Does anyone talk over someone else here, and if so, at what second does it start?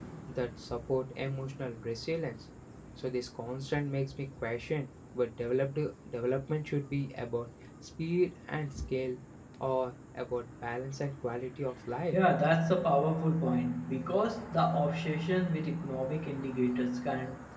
none

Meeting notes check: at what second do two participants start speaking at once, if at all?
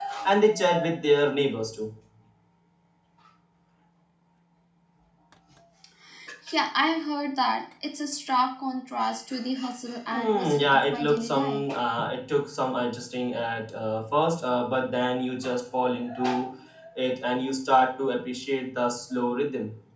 10 s

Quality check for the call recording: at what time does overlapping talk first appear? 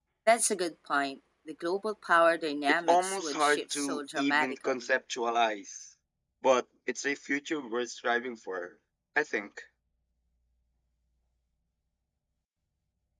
3 s

